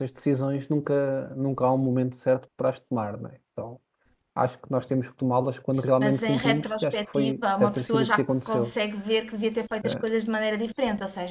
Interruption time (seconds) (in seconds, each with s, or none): 6.0 s